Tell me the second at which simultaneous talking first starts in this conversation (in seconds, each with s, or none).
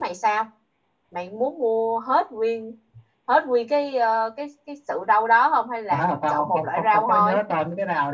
5.9 s